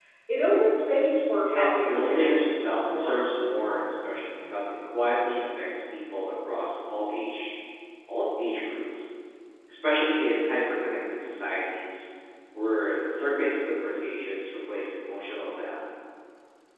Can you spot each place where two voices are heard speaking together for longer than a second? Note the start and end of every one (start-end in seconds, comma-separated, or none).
1.5-3.4